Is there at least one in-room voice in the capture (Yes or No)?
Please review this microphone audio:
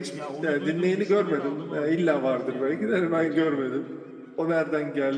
Yes